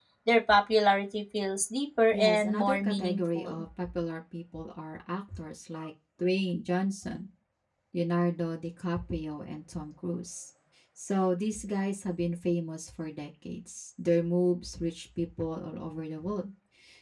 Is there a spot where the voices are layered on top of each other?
Yes, from 2.1 s

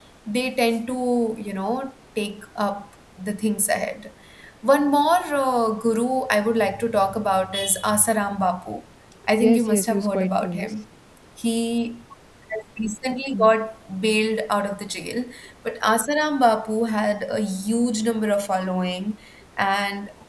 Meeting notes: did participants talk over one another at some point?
Yes, from 9.4 s

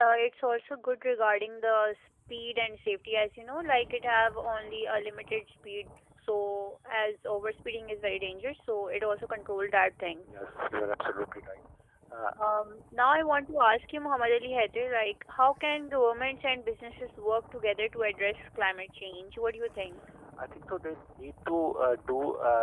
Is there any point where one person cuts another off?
No

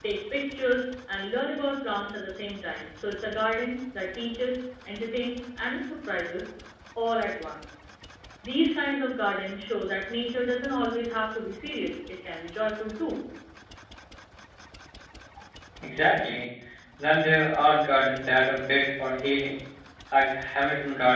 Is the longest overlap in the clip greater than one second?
No

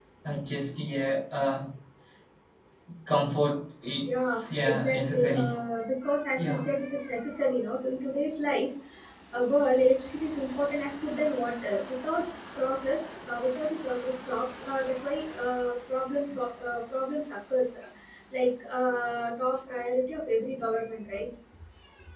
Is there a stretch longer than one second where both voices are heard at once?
Yes, from 4.0 s

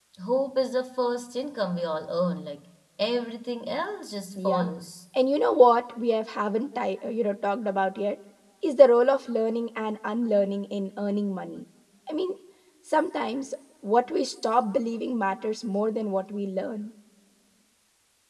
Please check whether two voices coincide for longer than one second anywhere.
No

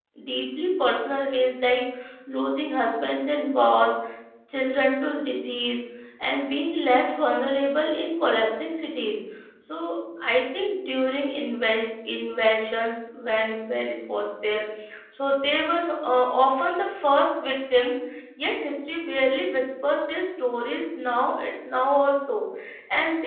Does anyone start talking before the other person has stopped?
No

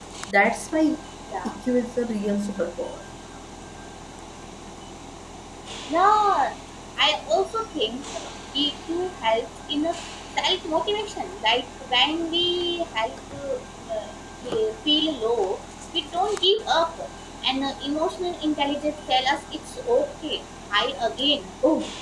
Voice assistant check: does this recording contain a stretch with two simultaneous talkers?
No

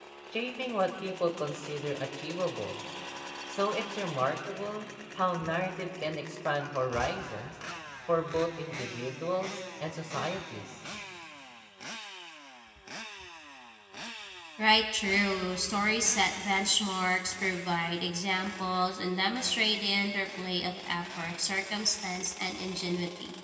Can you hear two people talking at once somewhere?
No

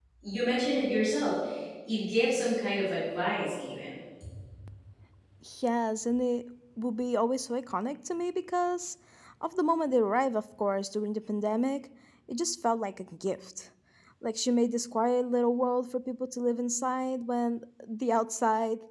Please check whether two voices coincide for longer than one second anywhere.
No

